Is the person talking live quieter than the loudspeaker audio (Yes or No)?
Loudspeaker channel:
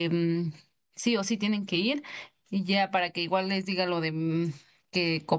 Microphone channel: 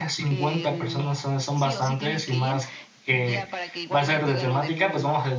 No